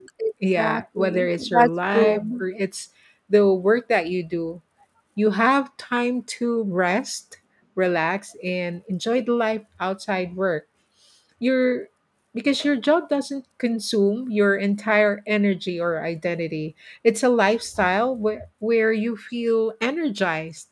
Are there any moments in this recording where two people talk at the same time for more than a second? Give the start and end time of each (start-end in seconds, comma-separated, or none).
0.6-2.4